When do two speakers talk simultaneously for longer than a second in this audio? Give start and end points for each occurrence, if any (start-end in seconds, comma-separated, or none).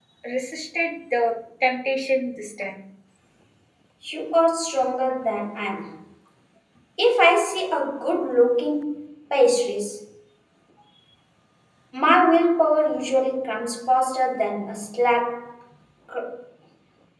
none